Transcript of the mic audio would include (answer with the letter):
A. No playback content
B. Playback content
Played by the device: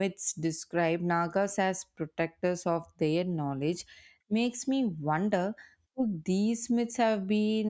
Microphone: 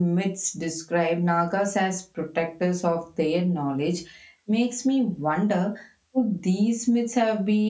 B